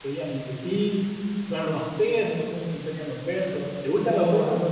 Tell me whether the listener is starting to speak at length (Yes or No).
Yes